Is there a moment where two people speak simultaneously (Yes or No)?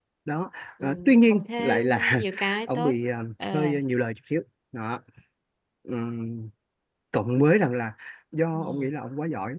Yes